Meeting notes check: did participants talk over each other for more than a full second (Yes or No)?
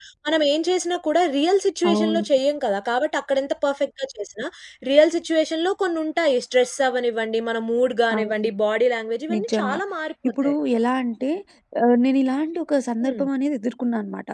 No